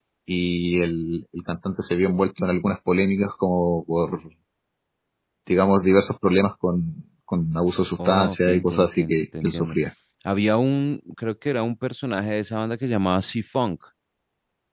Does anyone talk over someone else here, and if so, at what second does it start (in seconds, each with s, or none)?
8.1 s